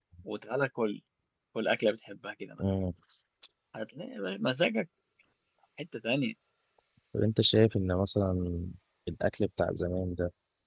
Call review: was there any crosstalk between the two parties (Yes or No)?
No